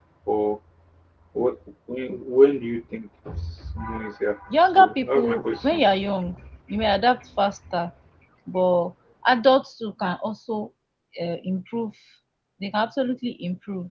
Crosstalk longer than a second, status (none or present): present